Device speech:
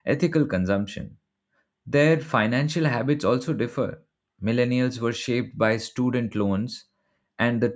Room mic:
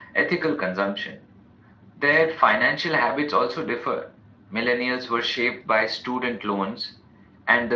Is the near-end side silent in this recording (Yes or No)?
Yes